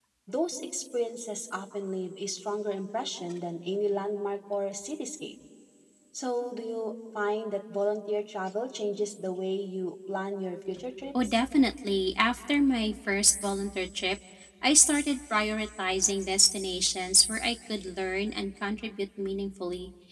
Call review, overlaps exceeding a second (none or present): none